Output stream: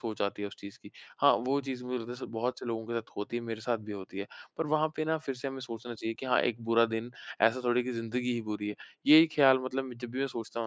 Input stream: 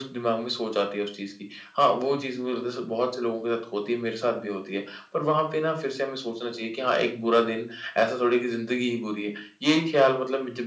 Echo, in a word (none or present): present